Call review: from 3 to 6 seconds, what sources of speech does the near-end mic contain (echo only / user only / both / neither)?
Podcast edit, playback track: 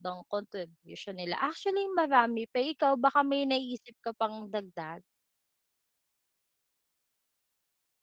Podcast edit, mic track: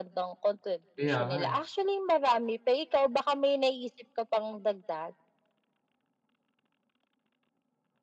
echo only